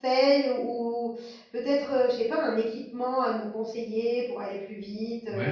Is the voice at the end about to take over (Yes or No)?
Yes